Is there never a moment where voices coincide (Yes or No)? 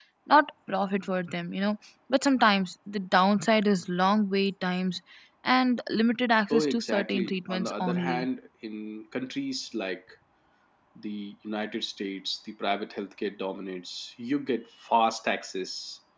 No